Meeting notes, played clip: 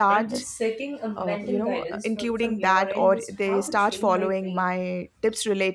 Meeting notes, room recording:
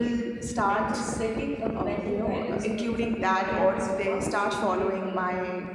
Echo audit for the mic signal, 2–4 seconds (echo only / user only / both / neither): echo only